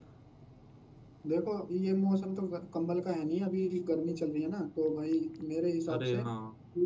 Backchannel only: Yes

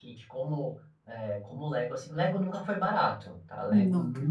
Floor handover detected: No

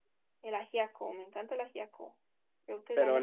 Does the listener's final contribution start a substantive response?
Yes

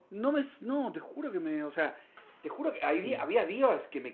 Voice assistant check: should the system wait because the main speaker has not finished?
Yes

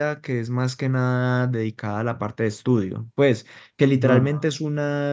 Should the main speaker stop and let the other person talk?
No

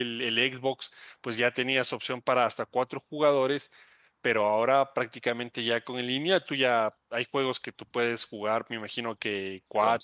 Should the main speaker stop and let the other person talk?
No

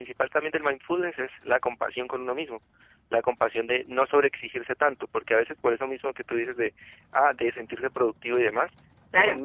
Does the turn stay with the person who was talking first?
Yes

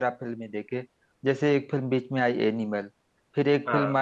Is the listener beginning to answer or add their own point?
No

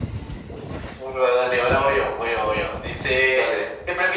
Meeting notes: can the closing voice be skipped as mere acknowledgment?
Yes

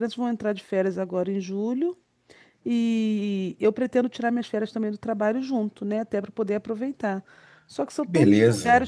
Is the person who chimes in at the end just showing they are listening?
Yes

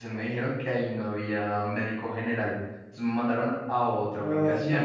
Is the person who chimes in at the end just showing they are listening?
No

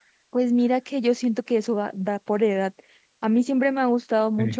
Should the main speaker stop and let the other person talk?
No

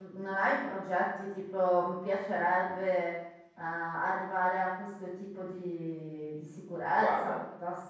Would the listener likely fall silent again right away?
Yes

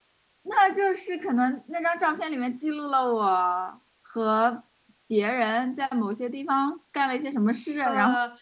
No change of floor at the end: No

